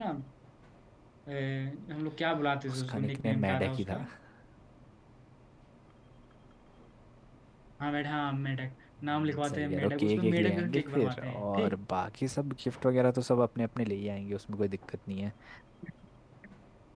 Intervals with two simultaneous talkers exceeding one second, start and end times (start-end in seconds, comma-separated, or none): 2.7-4.0, 9.0-11.8